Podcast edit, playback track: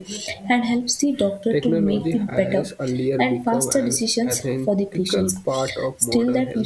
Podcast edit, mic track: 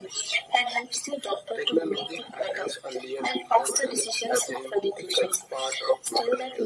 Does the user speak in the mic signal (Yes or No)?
No